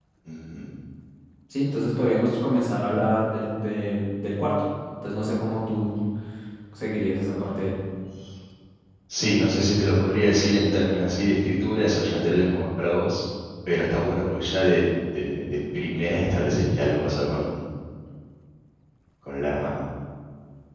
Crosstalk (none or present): none